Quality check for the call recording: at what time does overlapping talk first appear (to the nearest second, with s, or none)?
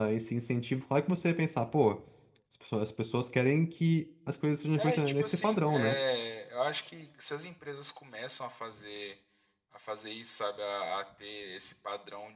5 s